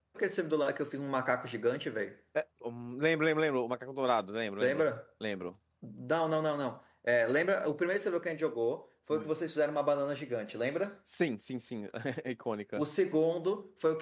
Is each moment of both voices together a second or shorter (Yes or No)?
Yes